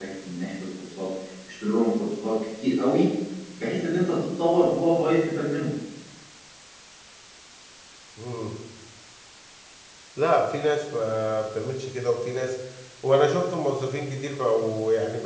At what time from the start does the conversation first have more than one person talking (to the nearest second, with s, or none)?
none